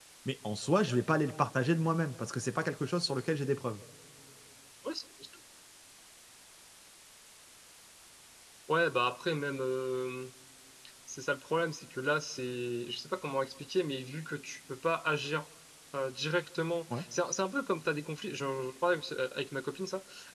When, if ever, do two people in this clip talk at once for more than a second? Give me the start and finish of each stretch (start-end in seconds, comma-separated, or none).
none